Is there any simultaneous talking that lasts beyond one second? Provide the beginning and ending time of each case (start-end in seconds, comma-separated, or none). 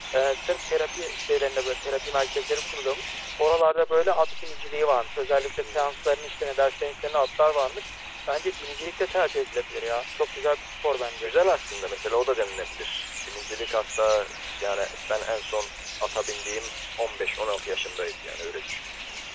none